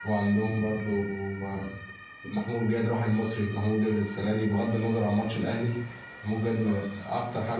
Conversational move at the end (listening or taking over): listening